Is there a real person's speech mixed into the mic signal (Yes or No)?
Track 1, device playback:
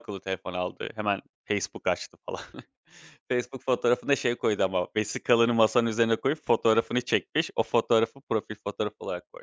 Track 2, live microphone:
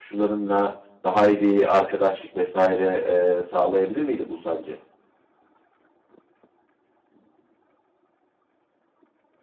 Yes